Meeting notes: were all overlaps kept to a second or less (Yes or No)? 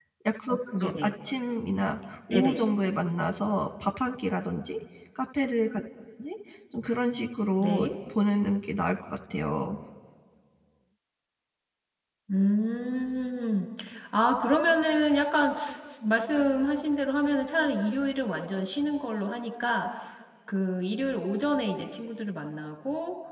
Yes